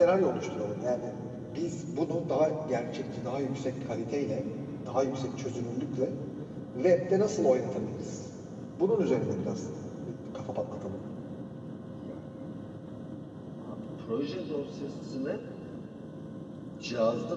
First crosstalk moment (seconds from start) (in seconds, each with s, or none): none